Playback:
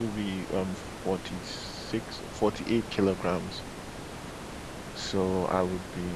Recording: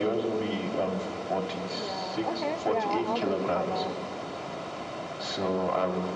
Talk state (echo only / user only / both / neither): both